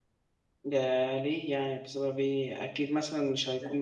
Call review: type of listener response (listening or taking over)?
listening